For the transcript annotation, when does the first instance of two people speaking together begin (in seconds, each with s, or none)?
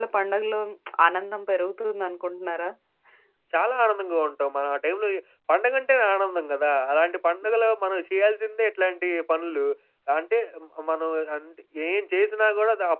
none